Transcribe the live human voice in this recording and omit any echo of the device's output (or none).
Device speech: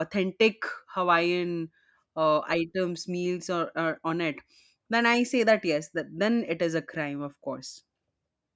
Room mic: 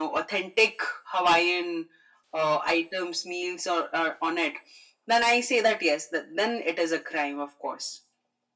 none